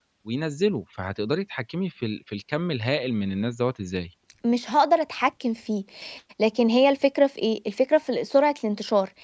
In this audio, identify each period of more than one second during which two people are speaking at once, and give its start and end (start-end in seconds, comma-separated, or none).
none